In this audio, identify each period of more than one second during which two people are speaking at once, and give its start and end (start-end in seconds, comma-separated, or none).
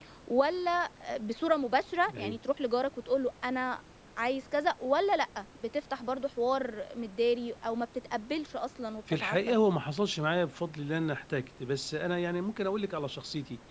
none